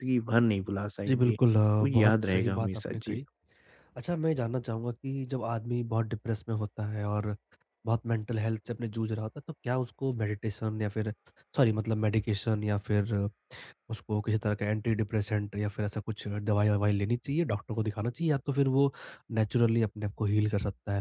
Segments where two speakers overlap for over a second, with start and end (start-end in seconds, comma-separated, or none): 1.8-3.2